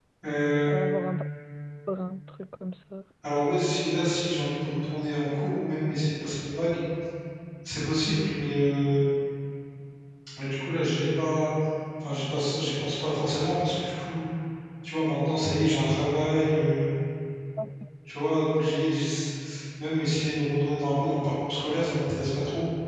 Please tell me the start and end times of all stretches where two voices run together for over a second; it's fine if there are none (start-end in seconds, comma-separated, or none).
none